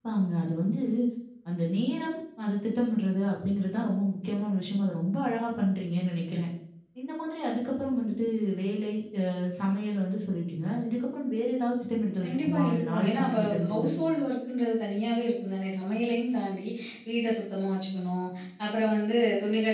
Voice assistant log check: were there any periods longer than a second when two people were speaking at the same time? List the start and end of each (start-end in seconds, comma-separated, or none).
12.2-14.0